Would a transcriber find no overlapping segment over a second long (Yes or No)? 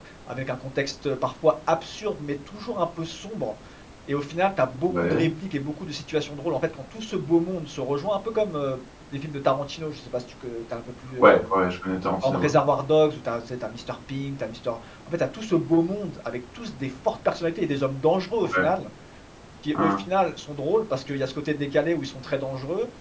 Yes